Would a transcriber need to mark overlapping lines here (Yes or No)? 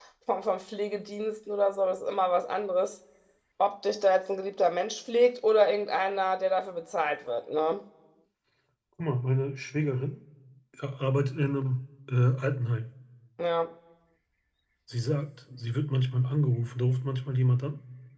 No